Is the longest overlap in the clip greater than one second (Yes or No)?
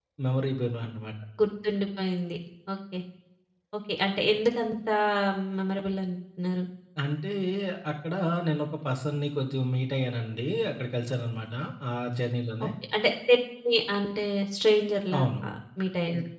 No